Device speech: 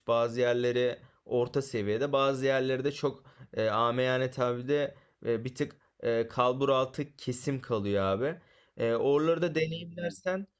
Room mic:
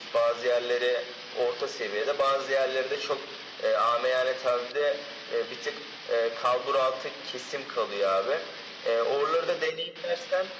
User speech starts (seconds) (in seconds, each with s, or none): none